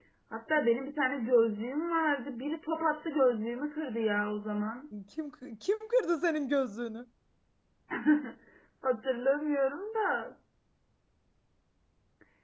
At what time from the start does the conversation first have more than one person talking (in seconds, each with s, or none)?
none